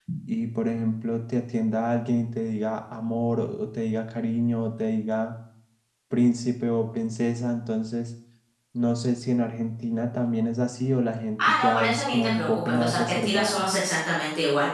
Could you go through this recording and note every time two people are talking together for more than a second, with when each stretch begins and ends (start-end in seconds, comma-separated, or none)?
11.5-13.6